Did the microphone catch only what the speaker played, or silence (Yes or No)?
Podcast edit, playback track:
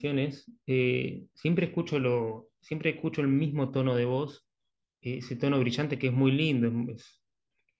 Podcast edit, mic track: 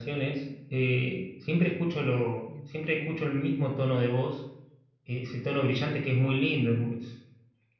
No